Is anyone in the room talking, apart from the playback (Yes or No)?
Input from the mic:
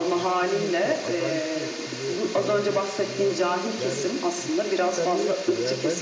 Yes